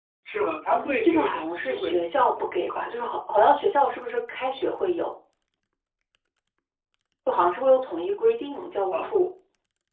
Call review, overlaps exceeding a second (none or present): present